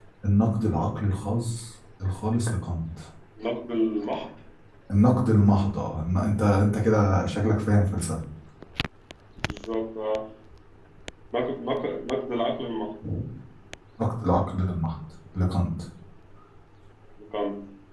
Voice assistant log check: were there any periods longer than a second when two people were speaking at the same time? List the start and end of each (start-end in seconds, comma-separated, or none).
none